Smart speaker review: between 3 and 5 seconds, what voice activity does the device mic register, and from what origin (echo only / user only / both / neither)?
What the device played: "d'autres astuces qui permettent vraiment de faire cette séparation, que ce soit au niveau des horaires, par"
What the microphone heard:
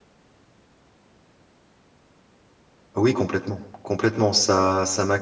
user only